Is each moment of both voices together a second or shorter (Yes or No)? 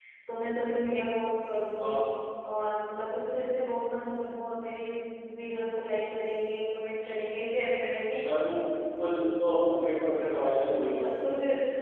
Yes